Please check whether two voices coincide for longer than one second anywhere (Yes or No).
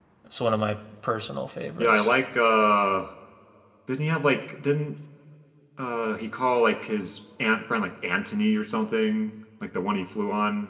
No